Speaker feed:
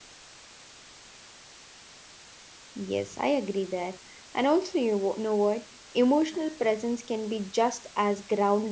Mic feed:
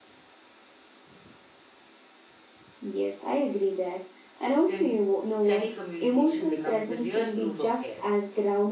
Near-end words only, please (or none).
since steady communication becomes the real proof of care.